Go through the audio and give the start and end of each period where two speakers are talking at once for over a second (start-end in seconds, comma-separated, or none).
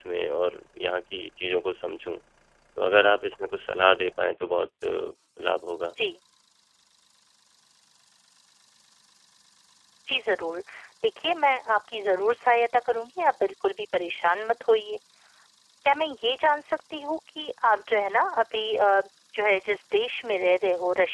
none